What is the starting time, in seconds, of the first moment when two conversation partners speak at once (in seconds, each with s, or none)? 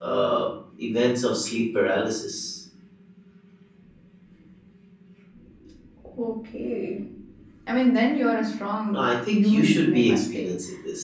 8.9 s